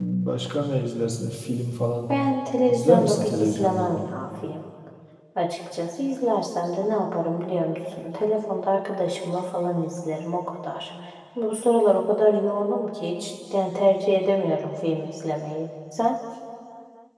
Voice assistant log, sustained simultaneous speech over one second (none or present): present